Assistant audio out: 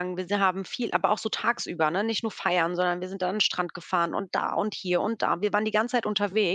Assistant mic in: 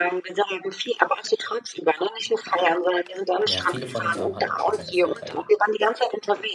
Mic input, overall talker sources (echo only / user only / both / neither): both